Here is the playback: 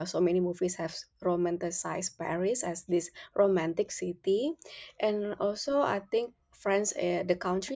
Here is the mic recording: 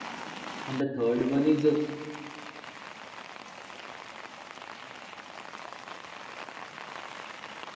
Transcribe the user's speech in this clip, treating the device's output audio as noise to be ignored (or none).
and the third one is uh,